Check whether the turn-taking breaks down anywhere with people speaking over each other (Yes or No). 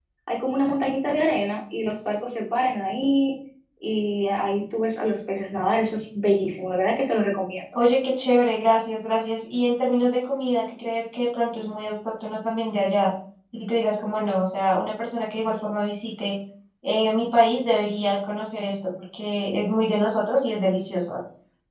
No